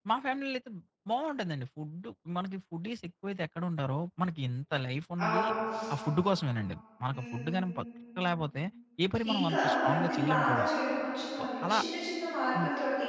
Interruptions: present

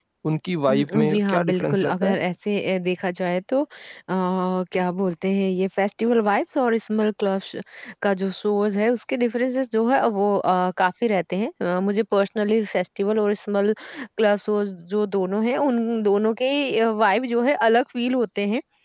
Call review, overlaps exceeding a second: present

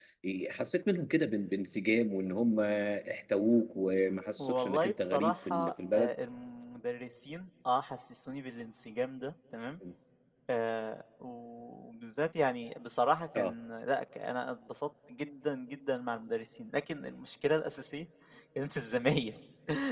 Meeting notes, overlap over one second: present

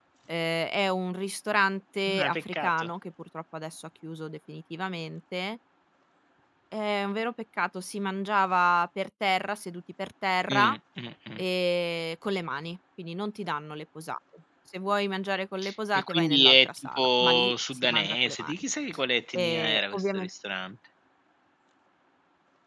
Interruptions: present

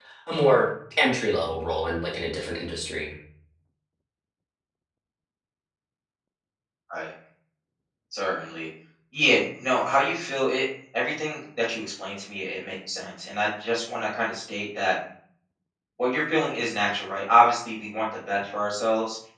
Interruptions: none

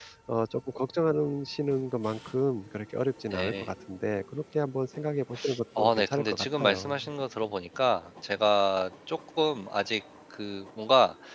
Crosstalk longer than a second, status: present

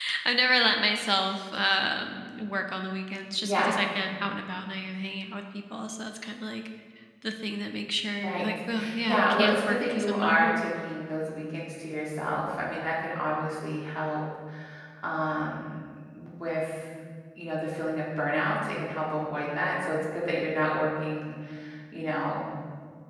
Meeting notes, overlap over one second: present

